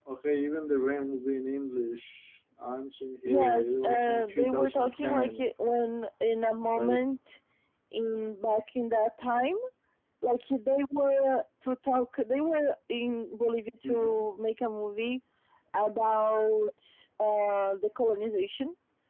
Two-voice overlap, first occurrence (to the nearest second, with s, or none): 3 s